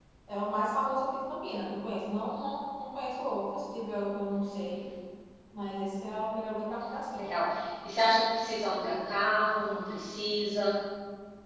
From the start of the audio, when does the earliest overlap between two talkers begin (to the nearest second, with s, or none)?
none